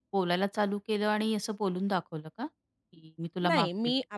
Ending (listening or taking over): taking over